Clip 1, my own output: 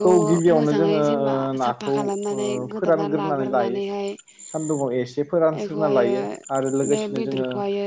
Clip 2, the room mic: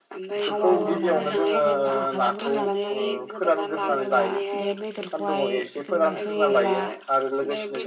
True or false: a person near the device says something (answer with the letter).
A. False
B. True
B